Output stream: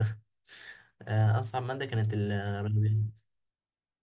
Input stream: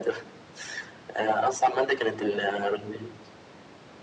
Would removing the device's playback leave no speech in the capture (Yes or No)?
Yes